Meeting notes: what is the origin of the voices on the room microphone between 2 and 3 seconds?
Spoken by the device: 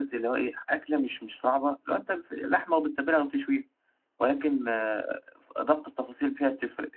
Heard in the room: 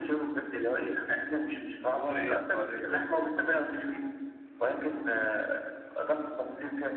both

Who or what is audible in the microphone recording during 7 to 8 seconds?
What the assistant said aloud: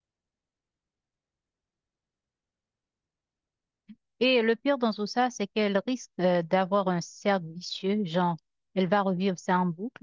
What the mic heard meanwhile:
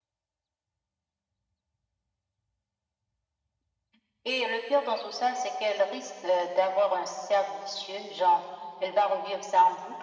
echo only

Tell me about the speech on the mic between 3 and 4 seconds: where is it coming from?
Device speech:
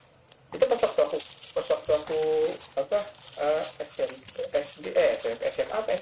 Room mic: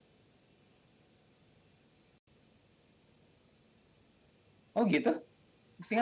neither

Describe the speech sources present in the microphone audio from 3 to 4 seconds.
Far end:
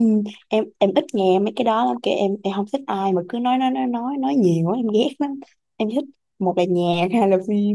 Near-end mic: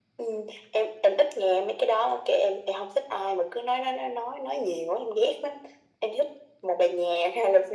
echo only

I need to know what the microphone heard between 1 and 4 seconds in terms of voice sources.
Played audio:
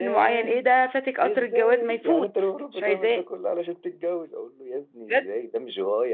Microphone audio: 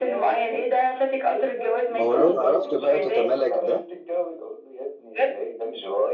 both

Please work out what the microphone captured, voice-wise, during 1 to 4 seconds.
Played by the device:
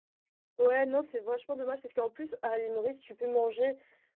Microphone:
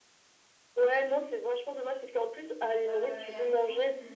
both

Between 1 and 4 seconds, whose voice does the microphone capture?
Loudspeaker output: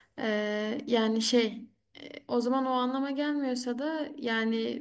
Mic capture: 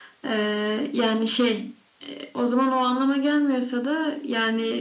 echo only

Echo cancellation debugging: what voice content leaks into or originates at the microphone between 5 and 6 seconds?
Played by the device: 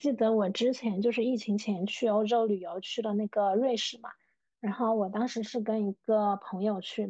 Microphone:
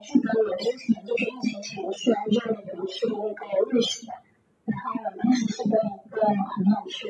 echo only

